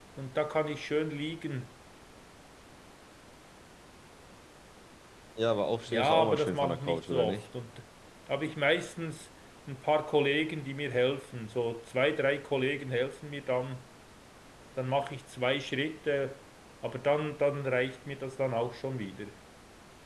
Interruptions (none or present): present